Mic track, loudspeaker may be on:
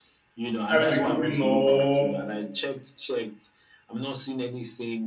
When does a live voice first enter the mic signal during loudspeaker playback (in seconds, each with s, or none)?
0.7 s